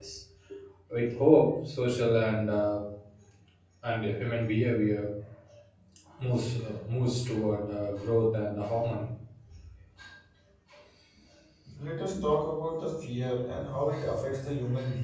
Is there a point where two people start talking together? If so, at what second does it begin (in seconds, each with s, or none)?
none